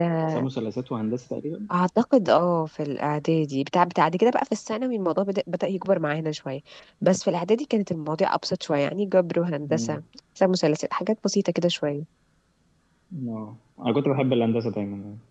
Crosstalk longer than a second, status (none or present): none